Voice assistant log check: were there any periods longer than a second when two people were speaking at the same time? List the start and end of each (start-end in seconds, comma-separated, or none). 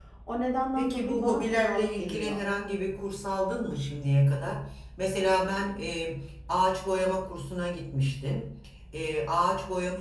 0.8-2.4